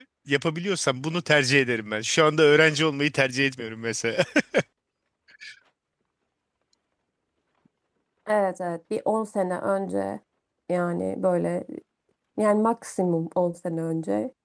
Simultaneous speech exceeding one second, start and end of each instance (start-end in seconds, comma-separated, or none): none